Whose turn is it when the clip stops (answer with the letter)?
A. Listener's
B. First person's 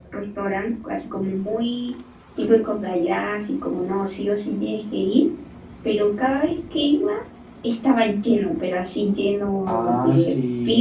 A